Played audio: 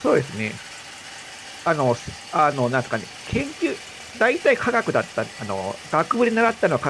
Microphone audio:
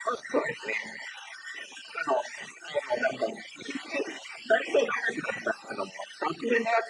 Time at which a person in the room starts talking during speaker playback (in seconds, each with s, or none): none